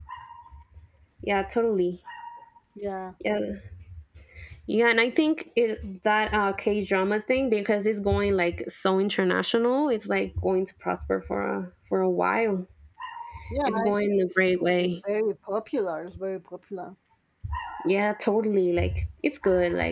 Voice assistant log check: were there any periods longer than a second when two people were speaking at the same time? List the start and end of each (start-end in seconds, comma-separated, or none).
13.6-14.9